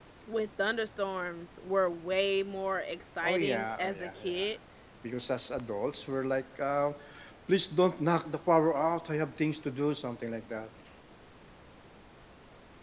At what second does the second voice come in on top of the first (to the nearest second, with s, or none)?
3 s